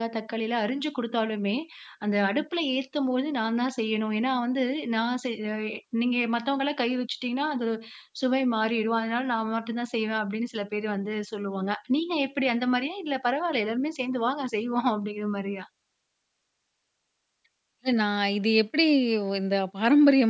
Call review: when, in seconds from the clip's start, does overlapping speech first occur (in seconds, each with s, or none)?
none